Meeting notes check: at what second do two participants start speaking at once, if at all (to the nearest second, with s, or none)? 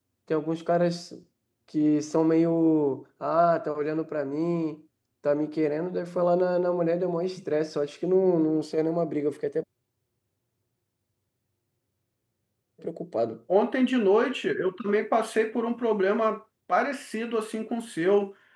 none